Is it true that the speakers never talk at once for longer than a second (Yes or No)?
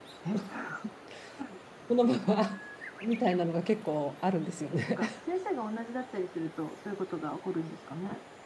Yes